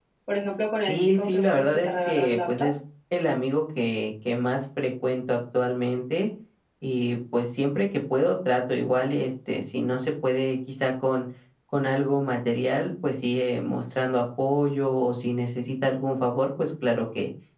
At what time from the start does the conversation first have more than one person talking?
0.8 s

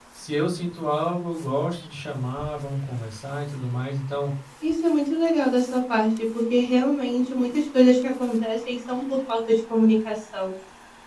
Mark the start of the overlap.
none

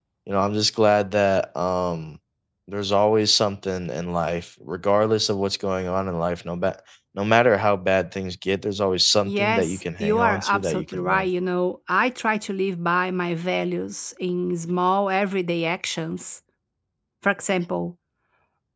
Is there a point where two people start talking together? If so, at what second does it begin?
9.2 s

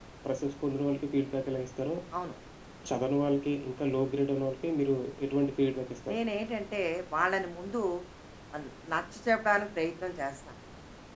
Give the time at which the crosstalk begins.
none

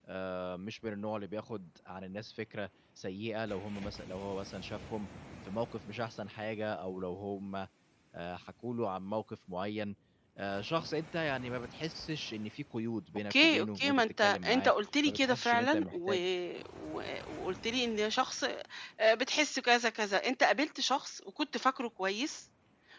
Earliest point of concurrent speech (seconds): 13.3 s

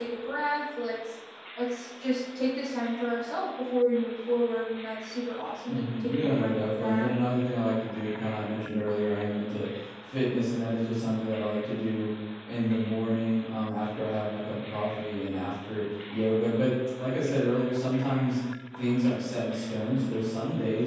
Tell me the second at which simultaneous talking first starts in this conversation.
5.6 s

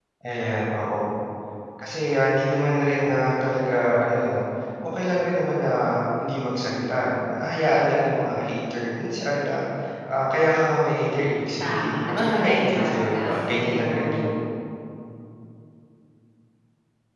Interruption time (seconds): 11.6 s

